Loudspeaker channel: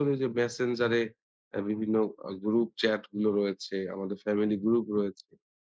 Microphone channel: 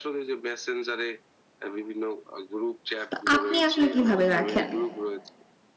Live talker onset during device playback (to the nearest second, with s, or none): 3 s